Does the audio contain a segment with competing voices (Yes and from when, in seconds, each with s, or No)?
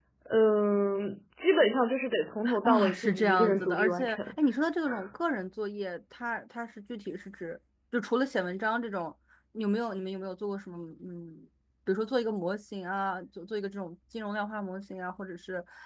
Yes, from 2.4 s